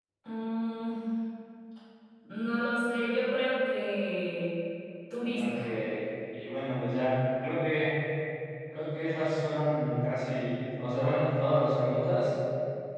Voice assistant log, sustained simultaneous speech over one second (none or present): none